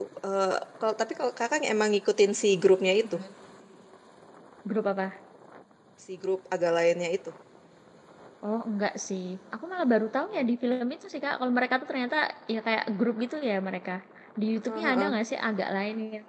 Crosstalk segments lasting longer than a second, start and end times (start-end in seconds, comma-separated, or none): none